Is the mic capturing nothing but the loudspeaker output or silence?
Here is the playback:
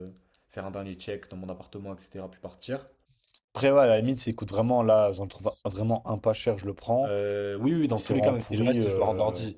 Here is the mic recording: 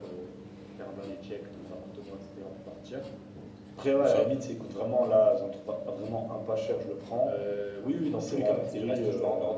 No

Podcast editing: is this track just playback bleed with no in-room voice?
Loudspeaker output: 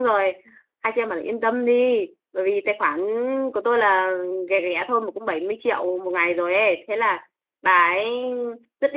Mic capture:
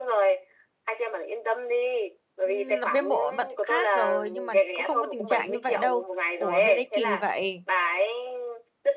No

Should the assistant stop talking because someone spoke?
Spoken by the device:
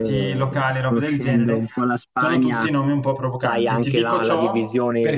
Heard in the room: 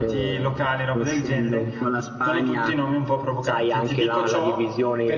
No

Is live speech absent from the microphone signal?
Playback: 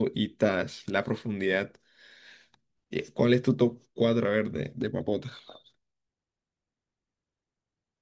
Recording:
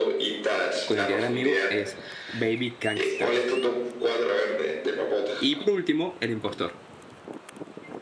No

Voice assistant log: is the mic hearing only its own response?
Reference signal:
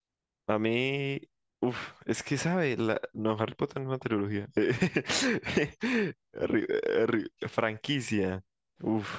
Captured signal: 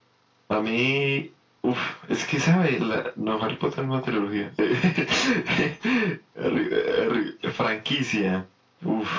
Yes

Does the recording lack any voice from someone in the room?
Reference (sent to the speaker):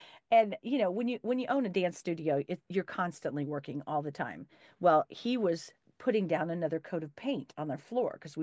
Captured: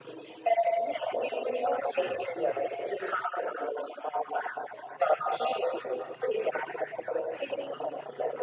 No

